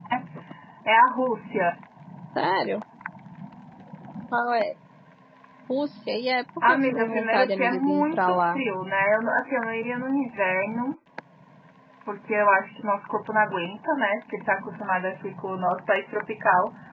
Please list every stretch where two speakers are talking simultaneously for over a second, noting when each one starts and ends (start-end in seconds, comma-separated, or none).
6.7-8.6